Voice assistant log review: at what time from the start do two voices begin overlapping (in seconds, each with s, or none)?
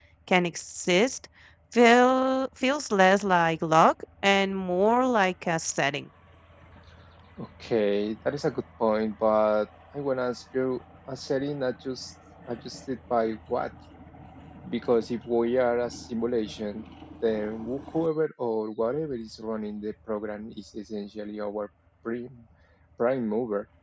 none